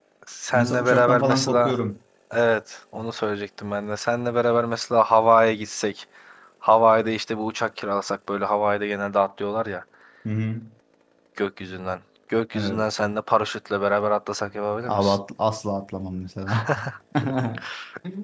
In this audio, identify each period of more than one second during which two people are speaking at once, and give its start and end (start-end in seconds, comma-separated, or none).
0.5-1.8